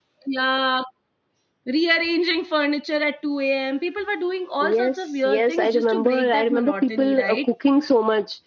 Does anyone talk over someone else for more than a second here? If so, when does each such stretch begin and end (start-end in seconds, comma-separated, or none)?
4.6-7.5